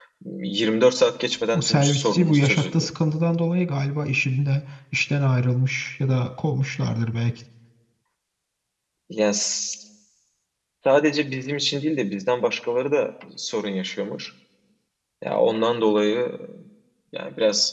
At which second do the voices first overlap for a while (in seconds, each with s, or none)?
1.5 s